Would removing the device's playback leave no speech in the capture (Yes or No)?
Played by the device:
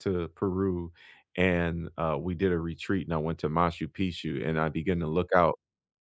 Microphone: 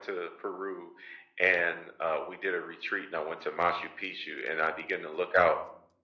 Yes